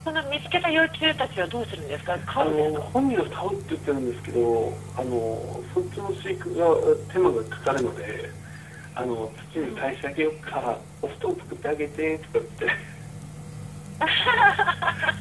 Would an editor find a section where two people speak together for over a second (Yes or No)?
No